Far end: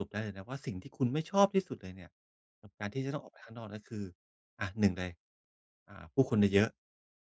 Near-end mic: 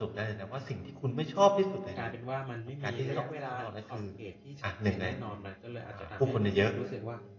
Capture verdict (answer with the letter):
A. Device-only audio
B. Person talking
B